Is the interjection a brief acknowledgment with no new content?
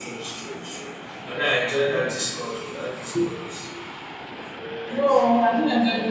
No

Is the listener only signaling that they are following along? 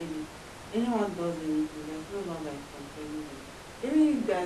Yes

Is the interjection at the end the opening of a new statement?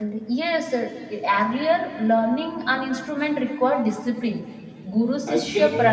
Yes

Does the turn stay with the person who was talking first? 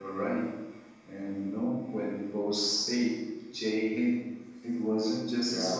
Yes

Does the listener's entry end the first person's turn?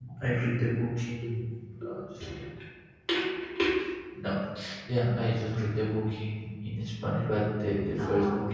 No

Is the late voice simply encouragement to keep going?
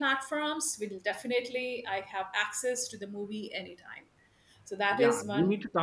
No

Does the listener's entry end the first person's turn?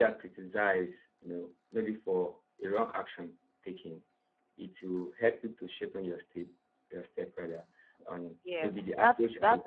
Yes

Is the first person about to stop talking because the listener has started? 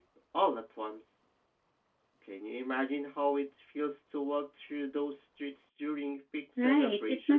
Yes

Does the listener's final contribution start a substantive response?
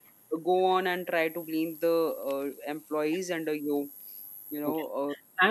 Yes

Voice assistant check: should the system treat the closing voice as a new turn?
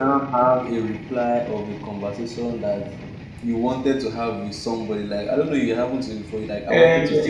Yes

